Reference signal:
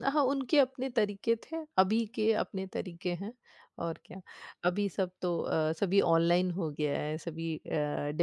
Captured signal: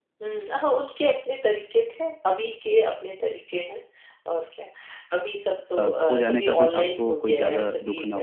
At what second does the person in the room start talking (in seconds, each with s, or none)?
5.8 s